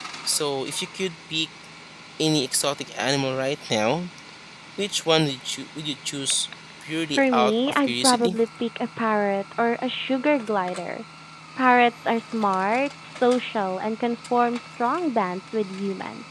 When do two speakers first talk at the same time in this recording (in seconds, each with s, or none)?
7.2 s